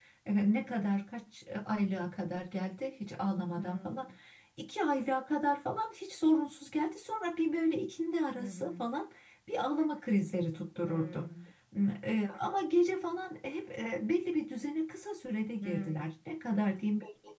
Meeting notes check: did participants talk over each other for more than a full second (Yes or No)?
No